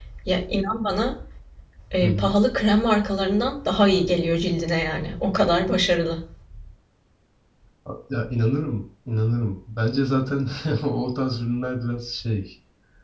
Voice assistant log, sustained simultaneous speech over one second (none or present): none